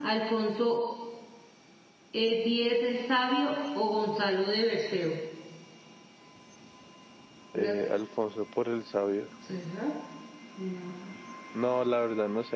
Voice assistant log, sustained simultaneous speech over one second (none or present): none